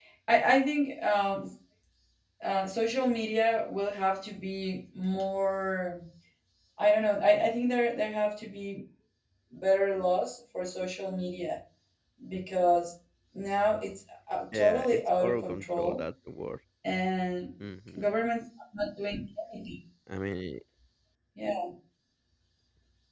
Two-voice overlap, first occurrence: 14.5 s

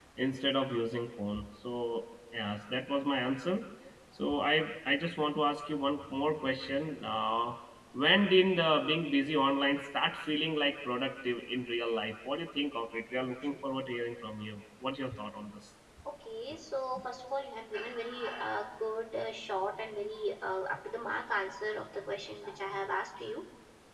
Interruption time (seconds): none

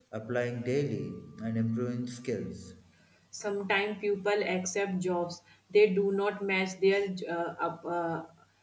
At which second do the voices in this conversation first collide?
none

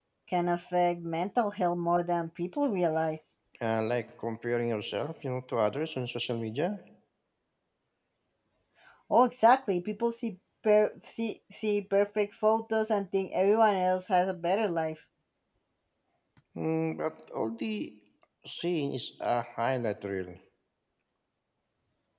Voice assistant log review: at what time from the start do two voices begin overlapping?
none

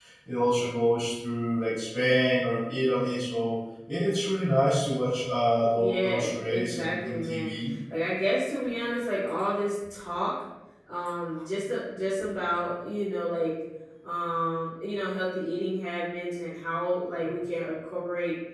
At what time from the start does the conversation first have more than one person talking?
5.7 s

